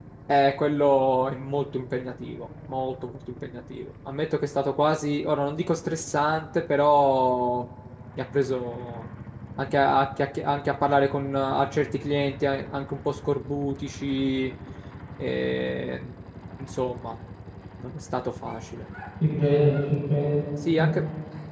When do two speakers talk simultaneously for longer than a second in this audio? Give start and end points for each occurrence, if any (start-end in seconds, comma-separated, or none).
none